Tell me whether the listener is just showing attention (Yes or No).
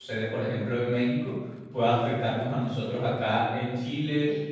Yes